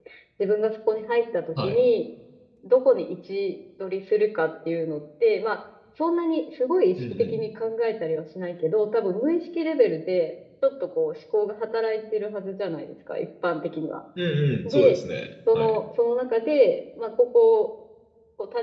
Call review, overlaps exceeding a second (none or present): none